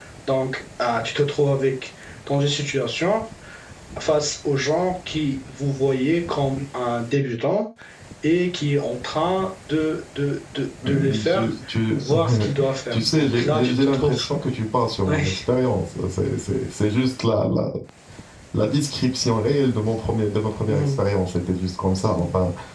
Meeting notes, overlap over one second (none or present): present